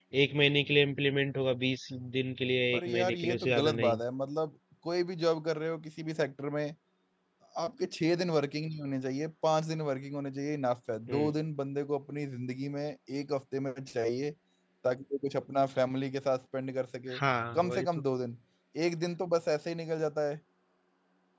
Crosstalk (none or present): present